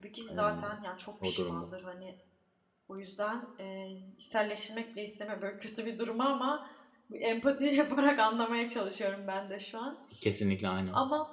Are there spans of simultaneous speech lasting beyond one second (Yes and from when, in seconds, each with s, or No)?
No